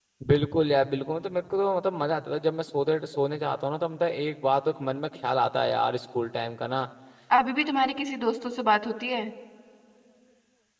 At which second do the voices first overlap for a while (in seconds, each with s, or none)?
none